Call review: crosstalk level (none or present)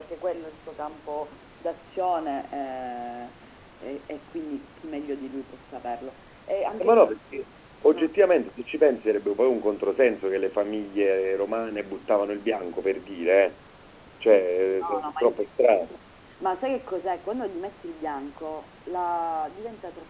present